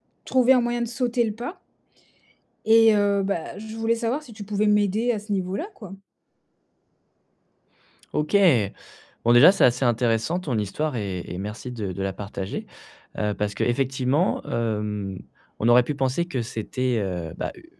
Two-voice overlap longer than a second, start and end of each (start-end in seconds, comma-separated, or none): none